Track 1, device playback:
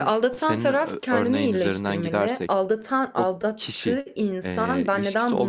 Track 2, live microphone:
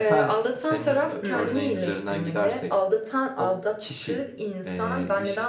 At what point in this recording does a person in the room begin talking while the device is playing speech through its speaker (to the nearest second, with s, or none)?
1 s